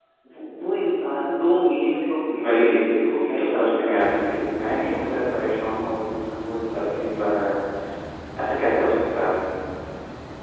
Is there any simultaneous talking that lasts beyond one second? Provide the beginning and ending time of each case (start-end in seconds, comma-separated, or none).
2.4-4.0